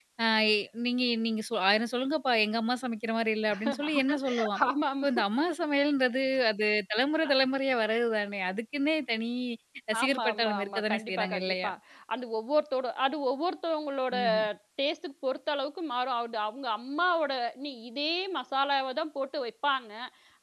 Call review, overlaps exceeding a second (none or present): present